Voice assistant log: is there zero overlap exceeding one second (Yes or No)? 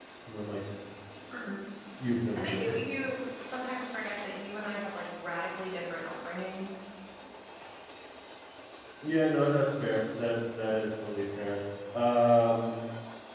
Yes